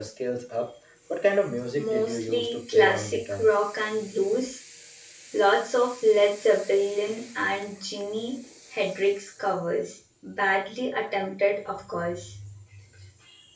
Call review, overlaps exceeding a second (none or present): present